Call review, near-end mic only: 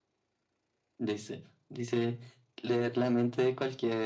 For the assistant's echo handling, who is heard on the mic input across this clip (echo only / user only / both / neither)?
echo only